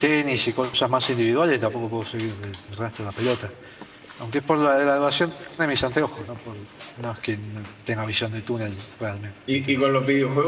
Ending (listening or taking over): taking over